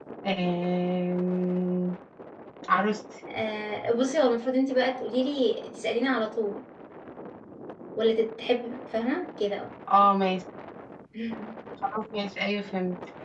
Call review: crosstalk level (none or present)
none